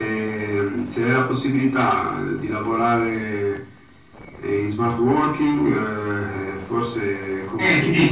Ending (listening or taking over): taking over